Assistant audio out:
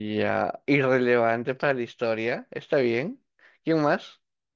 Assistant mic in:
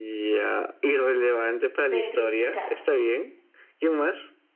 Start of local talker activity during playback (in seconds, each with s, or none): 1.9 s